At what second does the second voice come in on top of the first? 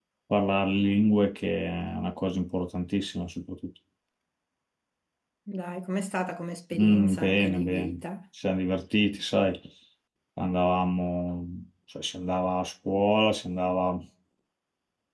6.7 s

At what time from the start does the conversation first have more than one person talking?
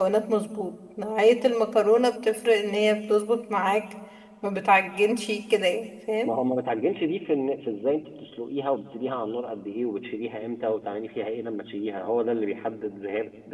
none

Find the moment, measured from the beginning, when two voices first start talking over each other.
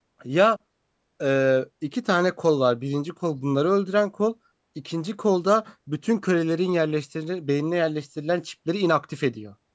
none

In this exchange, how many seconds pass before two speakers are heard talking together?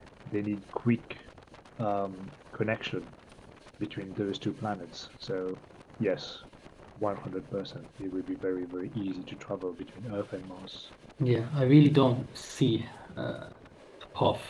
none

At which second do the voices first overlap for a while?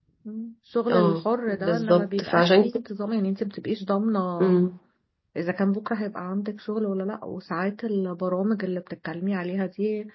0.9 s

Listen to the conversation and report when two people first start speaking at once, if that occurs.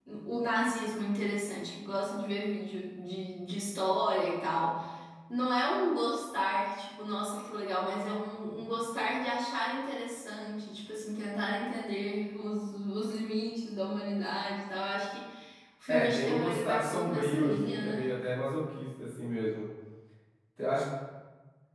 15.9 s

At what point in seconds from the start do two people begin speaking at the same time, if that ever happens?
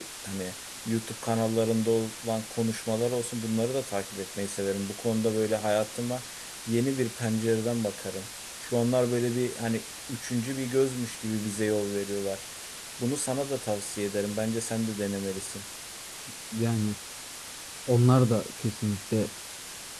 none

